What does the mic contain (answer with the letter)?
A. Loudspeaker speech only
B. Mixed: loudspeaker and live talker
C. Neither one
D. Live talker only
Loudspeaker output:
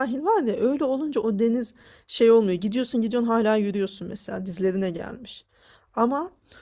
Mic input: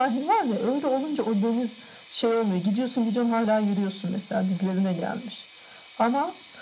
A